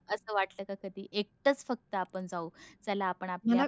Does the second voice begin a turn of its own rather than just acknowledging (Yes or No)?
No